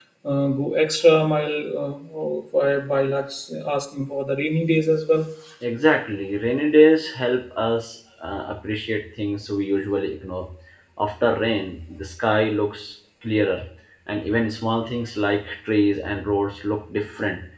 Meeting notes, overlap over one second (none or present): none